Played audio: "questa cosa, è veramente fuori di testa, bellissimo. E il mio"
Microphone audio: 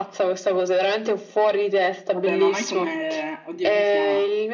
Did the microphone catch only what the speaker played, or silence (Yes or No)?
No